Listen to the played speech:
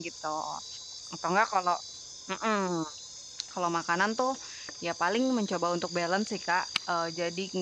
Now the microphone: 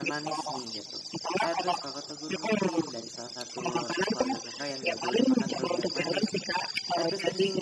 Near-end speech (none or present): present